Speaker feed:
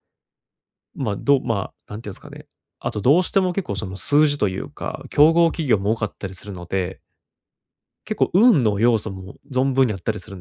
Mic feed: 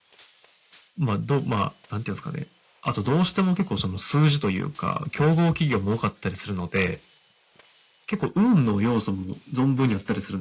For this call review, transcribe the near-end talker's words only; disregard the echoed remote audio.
none

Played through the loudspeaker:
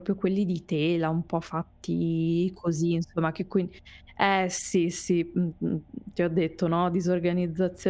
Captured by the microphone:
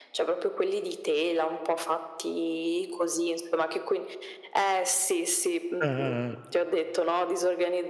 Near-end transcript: Ah, ah, ah.

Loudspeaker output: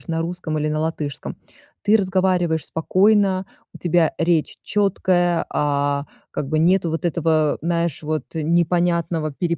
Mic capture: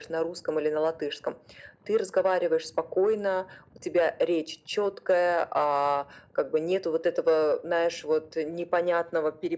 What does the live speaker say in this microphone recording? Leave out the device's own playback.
none

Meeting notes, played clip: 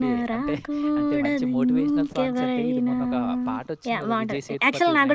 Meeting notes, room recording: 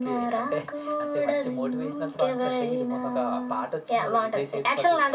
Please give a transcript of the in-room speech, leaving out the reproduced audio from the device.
none

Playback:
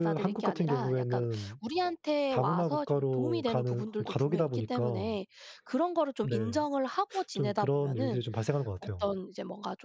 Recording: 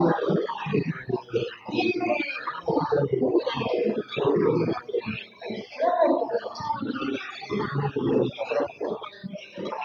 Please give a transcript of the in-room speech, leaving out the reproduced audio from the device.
none

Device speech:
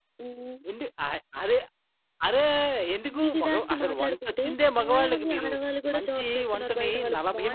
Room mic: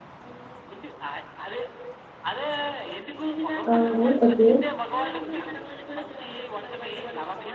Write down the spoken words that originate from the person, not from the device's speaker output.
అవును. ఓకే.

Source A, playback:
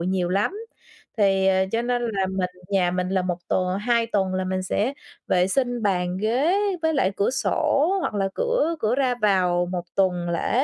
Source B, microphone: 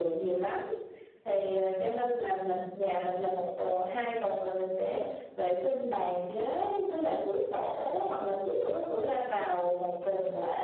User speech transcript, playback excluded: Ừm. Ừm.

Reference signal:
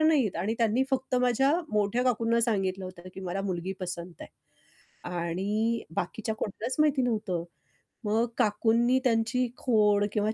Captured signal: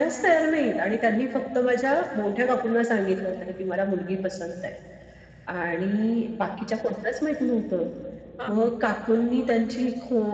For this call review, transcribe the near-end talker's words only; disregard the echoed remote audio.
हां, हां.

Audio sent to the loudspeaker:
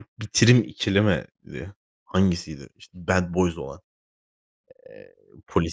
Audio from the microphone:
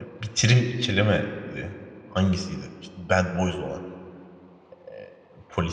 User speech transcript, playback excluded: none

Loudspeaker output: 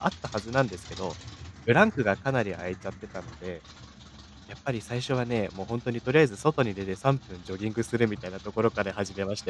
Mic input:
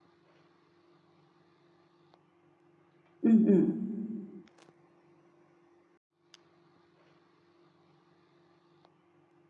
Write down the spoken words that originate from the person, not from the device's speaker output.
うんうん。

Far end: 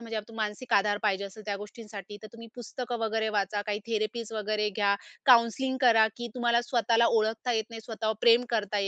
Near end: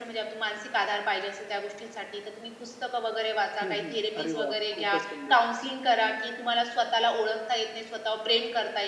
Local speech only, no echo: हं, हं. अरे वाह! खूपच सुंदर.

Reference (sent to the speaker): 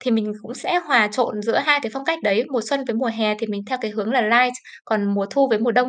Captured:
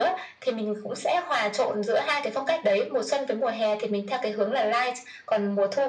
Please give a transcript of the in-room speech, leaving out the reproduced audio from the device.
none

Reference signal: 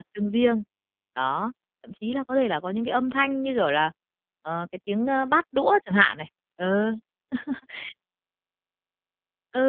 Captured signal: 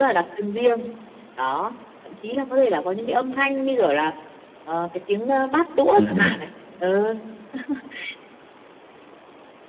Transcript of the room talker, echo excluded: Đúng rồi.

